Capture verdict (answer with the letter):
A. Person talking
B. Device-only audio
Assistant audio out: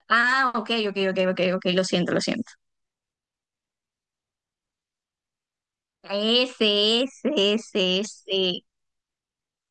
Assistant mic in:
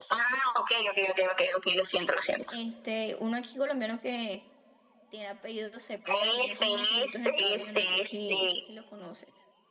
A